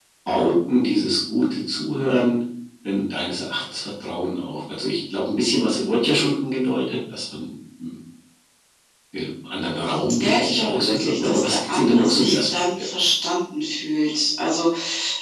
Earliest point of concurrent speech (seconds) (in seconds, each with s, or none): 10.1 s